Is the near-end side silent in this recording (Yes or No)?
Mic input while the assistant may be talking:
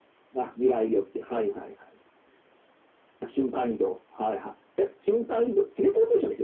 Yes